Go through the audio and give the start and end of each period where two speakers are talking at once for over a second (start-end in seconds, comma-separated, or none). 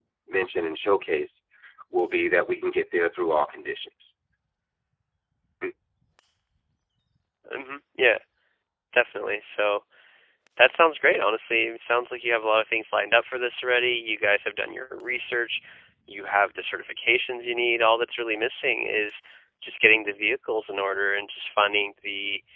none